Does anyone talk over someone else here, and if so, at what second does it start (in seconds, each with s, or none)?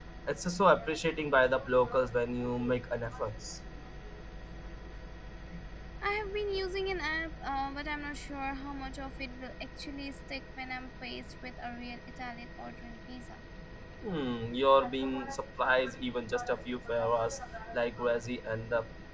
none